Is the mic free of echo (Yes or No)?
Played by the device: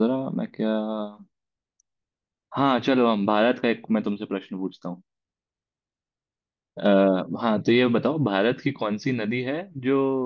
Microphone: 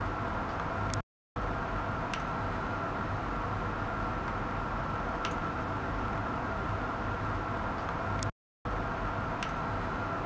Yes